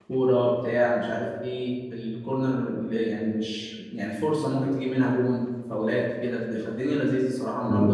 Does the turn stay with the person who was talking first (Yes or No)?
No